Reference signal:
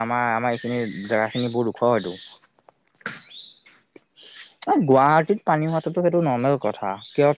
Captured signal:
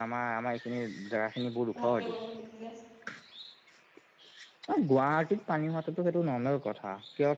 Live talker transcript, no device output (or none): ভালকে বৰষুণ দি দিলে।